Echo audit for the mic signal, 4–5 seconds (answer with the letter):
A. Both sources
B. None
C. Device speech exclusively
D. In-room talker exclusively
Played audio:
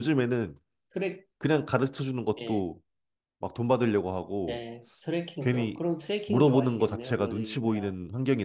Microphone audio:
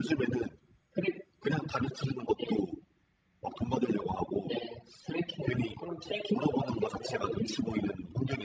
C